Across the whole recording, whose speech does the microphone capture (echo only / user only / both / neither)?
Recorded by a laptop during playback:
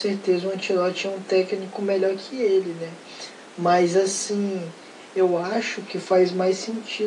echo only